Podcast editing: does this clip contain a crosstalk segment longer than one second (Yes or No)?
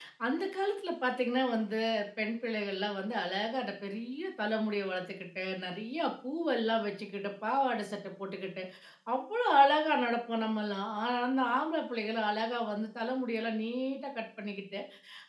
No